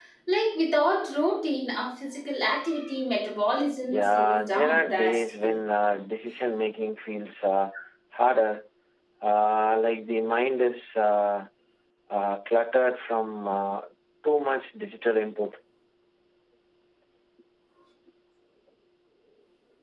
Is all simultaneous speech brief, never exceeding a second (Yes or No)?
No